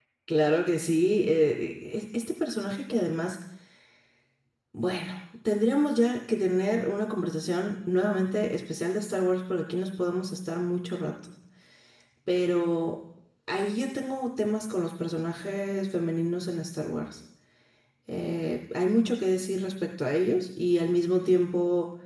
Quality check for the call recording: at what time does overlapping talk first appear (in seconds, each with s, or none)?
none